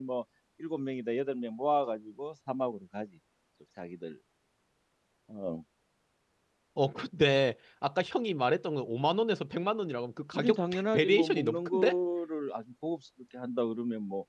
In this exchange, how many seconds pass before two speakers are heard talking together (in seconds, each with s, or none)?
10.3 s